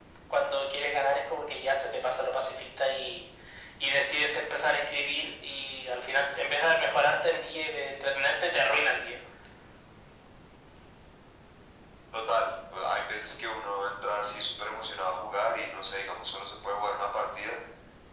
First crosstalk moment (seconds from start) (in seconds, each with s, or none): none